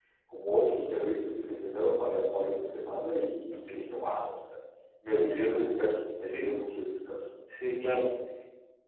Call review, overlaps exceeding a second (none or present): none